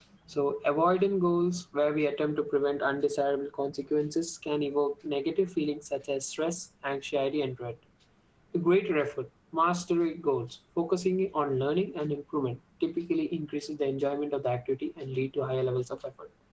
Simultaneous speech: No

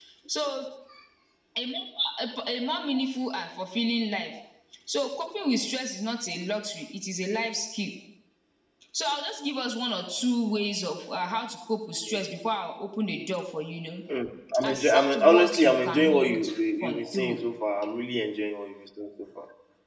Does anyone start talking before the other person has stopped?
Yes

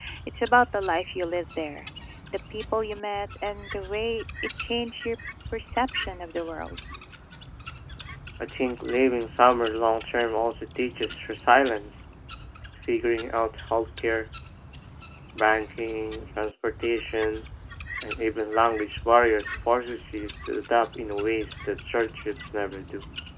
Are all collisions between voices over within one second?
Yes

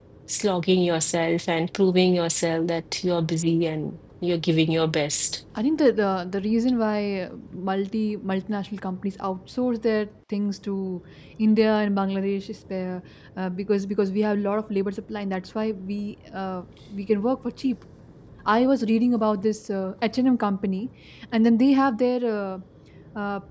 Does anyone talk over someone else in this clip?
No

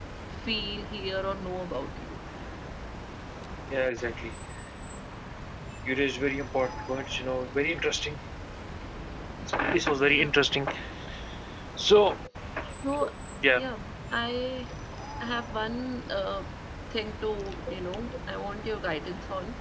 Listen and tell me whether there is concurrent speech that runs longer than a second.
No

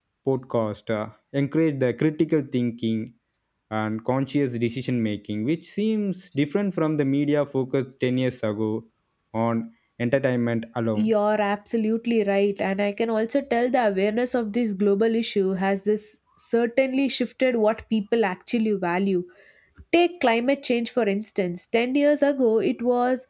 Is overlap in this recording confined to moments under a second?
Yes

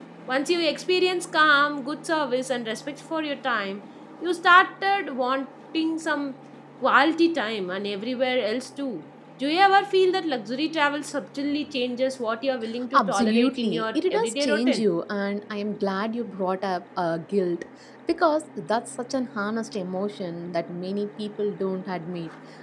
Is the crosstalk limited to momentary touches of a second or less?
No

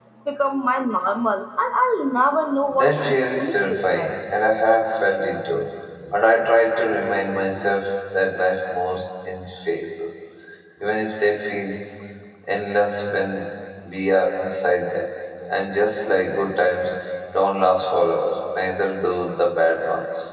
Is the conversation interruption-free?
No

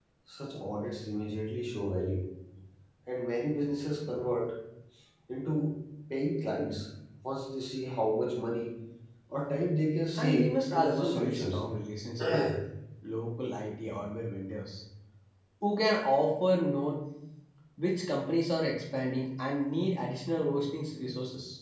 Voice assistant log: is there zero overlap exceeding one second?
No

